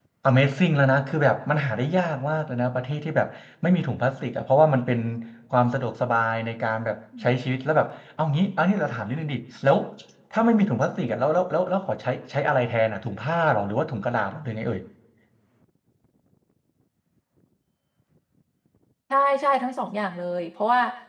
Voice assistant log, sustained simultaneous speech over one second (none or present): none